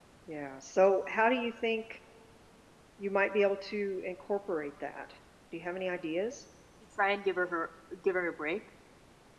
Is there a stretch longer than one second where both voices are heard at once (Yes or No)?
No